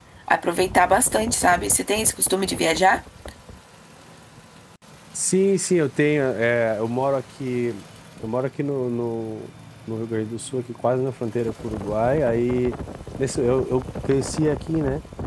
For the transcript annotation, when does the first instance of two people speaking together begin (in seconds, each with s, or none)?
none